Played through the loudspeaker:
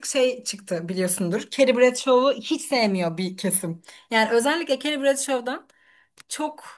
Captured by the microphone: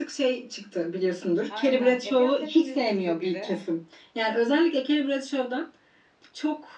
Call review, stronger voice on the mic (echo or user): echo